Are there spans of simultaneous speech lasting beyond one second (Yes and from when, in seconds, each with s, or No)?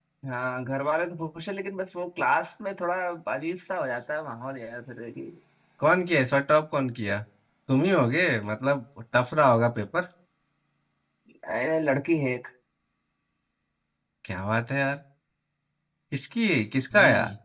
No